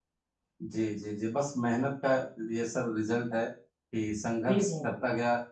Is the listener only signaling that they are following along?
Yes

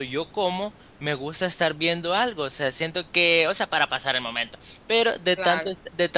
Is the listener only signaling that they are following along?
Yes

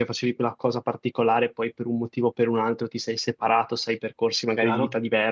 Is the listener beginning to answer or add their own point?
No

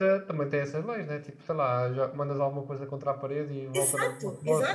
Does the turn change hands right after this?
Yes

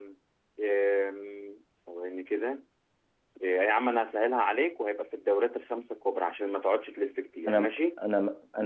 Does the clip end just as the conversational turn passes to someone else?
Yes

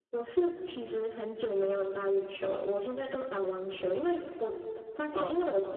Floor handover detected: No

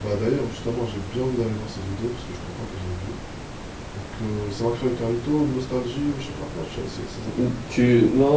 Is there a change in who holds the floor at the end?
Yes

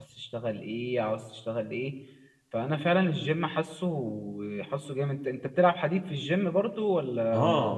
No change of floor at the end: No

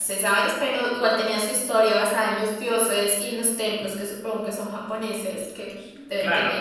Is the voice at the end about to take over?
Yes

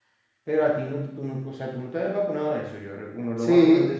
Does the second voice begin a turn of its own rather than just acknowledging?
Yes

